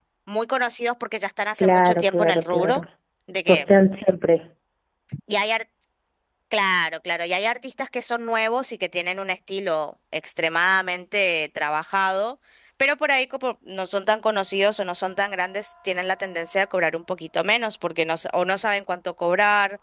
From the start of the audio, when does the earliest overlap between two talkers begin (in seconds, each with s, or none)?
1.6 s